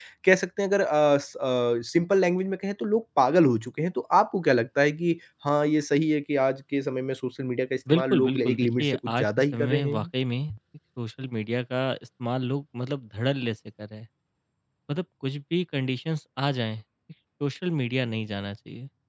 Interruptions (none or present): present